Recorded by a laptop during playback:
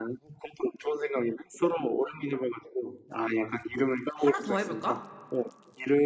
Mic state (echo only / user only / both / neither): both